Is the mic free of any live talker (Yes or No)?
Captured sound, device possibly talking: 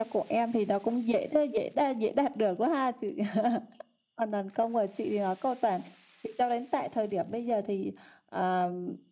Yes